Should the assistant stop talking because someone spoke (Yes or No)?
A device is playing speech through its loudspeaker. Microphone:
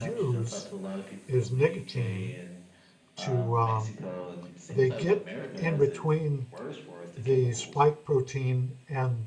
Yes